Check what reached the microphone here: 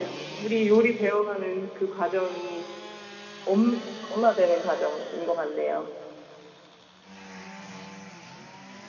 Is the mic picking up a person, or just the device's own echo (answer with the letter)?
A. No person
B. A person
A